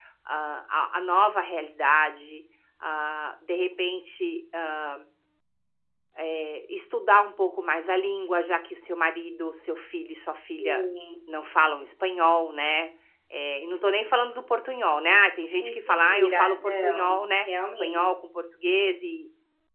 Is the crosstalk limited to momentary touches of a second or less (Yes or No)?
No